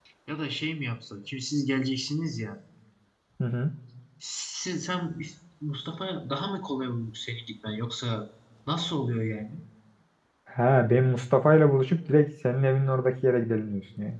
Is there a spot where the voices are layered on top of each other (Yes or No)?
No